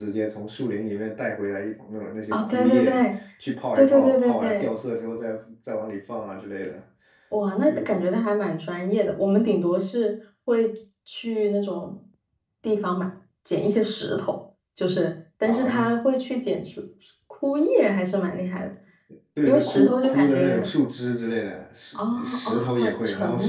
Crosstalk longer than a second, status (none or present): present